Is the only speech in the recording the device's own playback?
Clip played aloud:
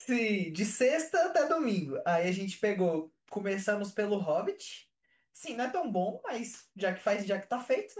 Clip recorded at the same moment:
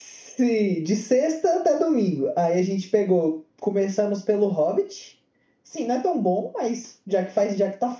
Yes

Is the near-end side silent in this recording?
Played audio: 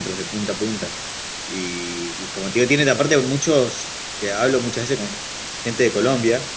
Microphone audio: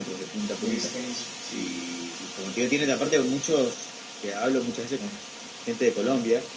No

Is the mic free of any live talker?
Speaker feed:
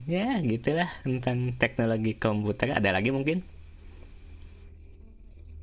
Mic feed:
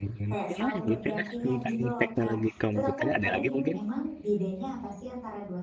No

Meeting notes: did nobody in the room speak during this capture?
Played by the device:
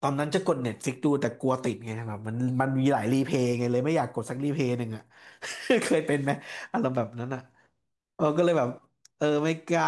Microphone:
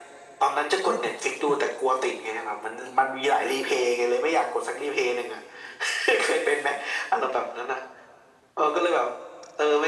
No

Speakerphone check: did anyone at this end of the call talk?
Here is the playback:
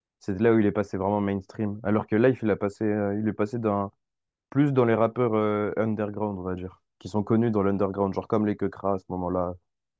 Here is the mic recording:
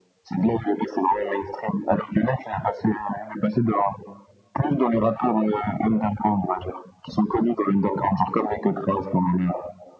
No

